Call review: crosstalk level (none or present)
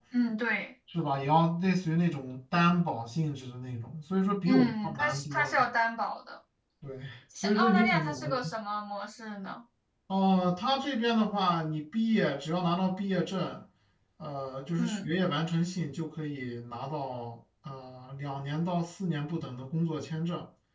present